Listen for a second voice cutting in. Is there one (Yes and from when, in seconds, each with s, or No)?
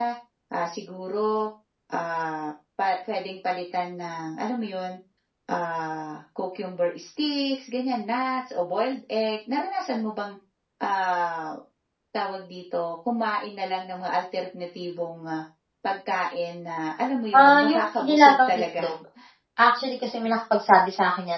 Yes, from 17.3 s